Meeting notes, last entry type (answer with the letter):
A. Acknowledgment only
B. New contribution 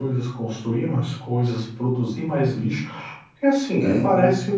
A